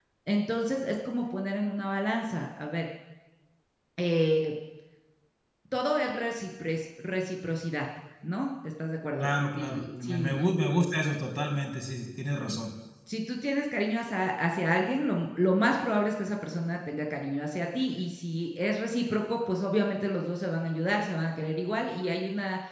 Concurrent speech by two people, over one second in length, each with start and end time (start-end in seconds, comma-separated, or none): 9.2-10.4